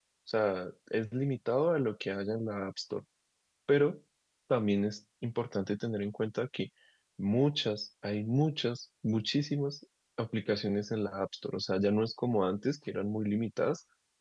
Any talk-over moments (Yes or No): No